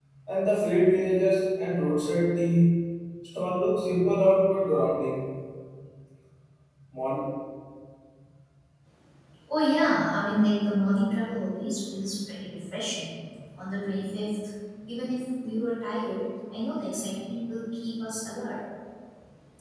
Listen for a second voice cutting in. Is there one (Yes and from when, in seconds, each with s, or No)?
No